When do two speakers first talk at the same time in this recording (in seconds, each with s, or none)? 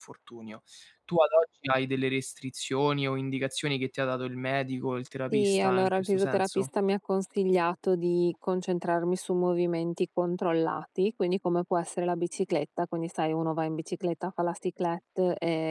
5.3 s